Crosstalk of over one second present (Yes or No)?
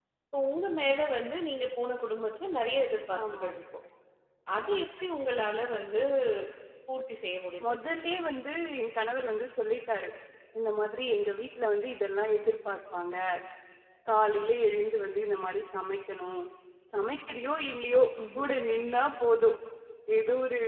No